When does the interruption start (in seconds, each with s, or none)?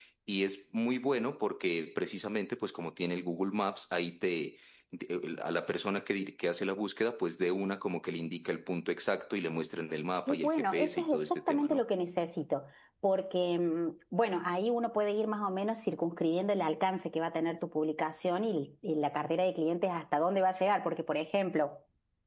10.3 s